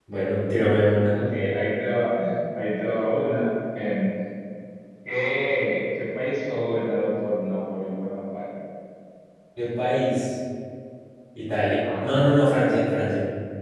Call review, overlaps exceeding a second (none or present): none